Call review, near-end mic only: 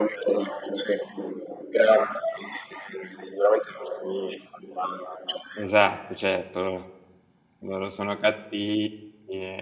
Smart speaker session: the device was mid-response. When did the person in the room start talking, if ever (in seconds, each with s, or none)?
5.6 s